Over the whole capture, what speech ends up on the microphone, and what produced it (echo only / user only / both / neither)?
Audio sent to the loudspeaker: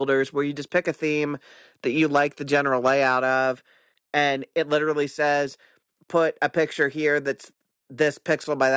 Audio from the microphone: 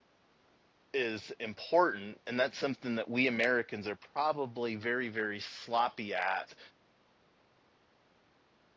user only